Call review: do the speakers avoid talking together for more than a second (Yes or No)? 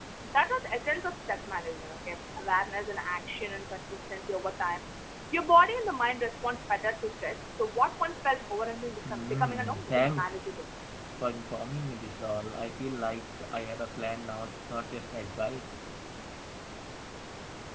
No